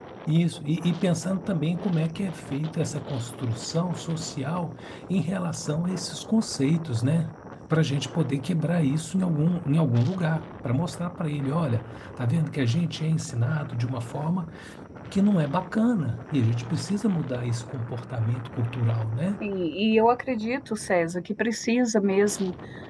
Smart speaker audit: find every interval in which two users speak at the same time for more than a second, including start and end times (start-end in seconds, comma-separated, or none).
none